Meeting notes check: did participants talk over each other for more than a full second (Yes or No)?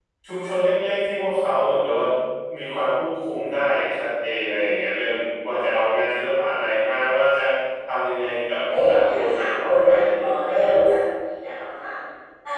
Yes